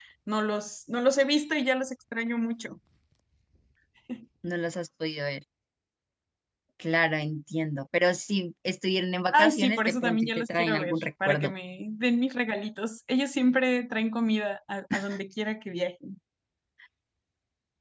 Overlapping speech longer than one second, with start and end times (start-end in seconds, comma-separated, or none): 9.3-11.5